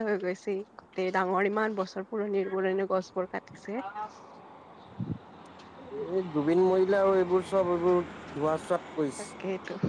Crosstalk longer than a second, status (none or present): none